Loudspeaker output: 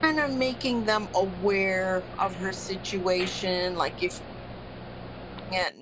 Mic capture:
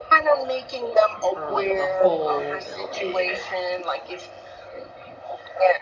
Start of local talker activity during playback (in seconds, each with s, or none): 1.3 s